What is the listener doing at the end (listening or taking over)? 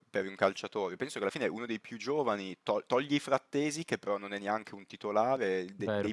listening